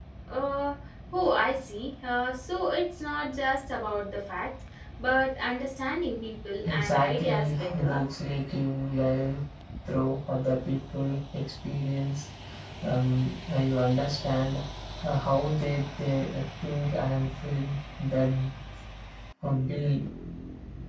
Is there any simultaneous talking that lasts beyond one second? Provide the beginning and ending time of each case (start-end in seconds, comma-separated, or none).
6.7-8.0